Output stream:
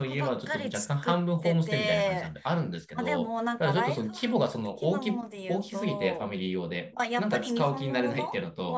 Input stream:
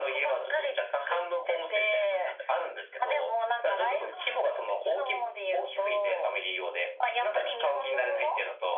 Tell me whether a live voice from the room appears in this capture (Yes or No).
No